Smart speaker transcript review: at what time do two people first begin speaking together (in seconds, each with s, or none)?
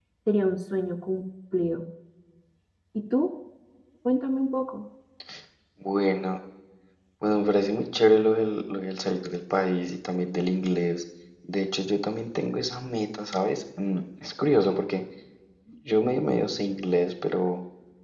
none